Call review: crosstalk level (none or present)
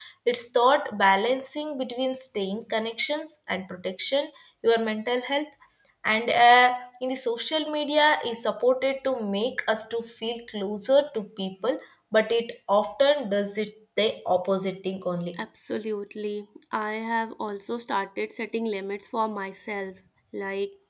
none